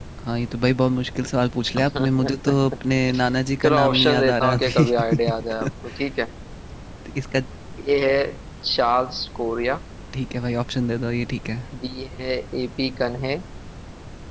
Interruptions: present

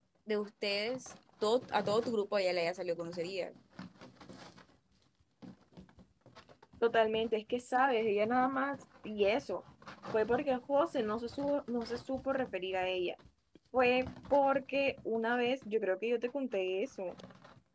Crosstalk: none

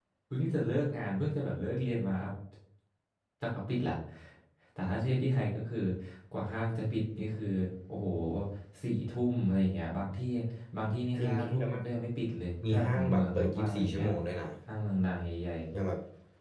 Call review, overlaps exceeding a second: present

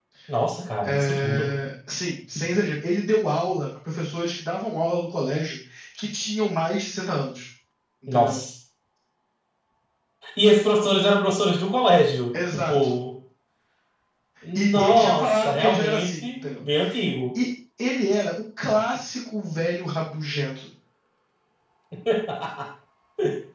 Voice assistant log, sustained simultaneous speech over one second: present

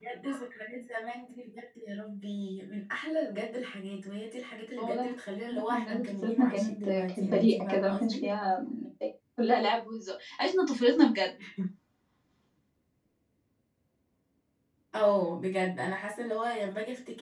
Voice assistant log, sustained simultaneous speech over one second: present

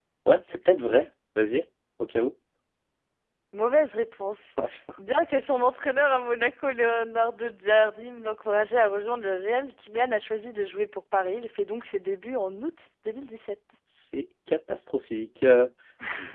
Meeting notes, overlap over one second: none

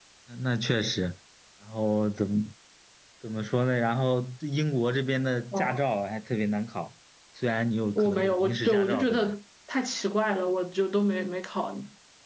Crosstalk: present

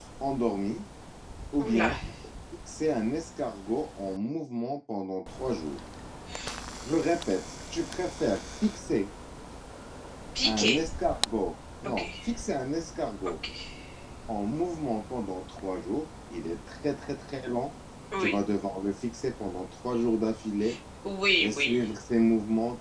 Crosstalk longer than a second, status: none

